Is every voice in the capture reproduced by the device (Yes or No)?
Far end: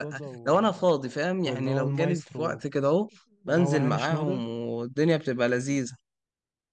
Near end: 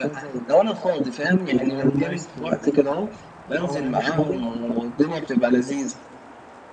Yes